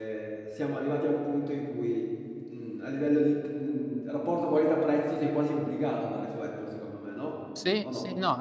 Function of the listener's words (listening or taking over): taking over